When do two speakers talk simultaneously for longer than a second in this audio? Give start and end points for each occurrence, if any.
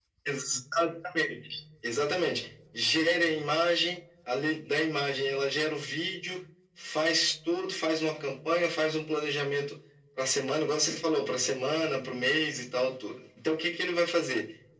none

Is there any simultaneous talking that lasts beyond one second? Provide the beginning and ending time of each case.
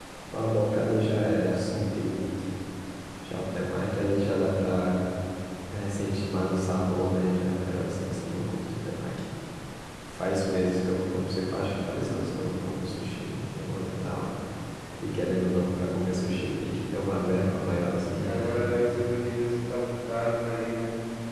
none

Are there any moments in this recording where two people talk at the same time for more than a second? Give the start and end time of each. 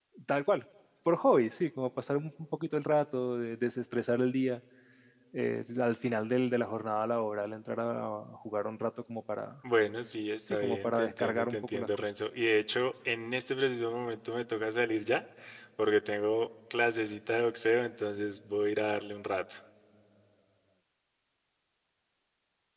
10.5-12.1

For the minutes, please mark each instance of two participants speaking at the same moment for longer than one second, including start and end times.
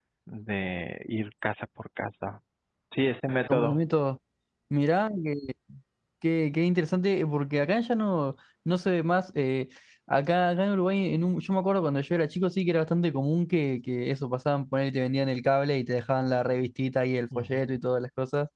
none

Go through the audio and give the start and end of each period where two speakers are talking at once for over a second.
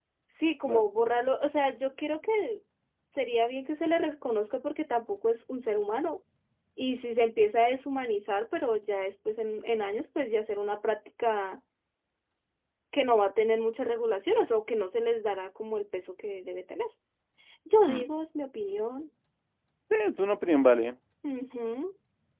none

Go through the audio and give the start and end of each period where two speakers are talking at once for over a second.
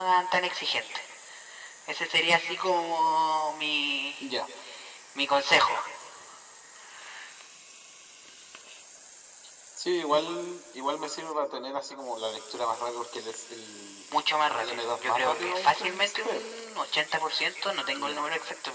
14.6-16.4

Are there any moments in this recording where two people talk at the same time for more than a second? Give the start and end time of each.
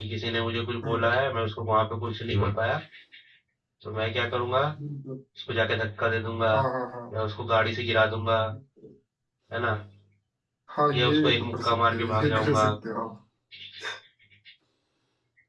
10.9-12.7

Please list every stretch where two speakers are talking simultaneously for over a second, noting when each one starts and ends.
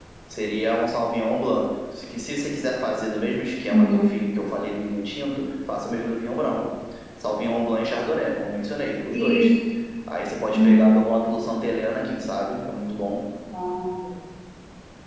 none

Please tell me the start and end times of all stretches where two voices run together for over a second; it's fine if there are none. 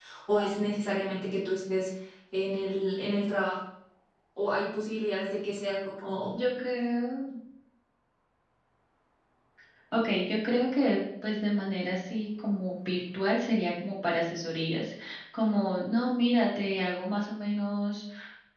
none

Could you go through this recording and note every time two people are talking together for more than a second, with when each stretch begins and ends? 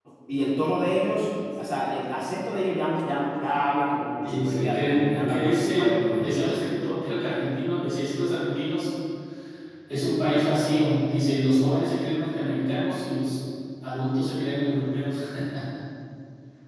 4.2-6.6

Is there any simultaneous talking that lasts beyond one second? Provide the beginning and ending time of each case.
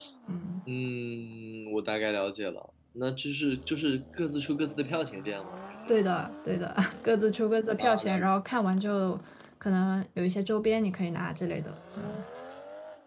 none

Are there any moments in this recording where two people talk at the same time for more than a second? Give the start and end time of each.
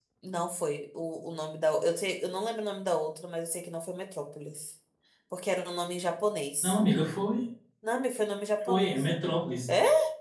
none

